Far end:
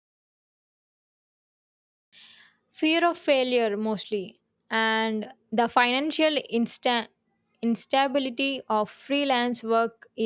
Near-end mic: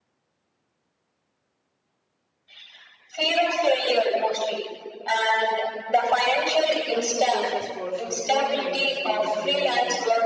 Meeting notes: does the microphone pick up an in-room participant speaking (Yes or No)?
Yes